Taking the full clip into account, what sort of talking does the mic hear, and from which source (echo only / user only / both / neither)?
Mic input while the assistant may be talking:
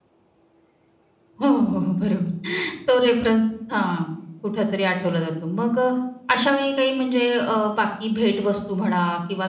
user only